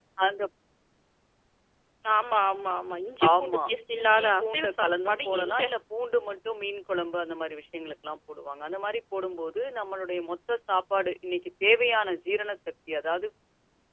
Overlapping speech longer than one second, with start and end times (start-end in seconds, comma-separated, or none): 3.3-5.6